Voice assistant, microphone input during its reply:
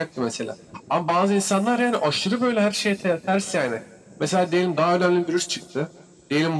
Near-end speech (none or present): none